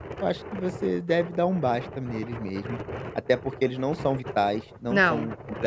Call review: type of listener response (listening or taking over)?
listening